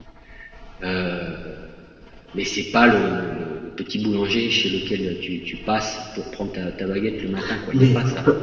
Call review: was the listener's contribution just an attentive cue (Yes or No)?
No